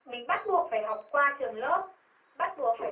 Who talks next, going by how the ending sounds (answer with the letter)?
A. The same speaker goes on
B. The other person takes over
A